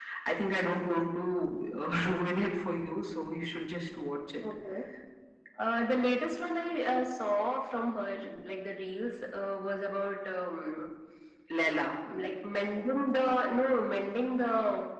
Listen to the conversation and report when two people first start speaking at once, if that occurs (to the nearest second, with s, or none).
none